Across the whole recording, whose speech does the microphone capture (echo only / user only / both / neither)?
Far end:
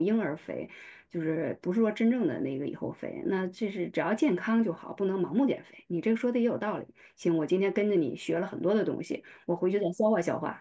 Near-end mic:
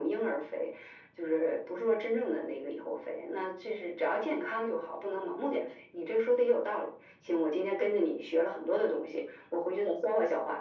echo only